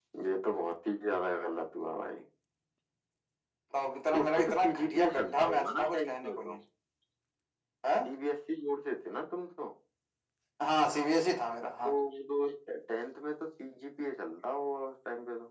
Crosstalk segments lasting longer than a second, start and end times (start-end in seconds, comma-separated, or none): 4.1-6.6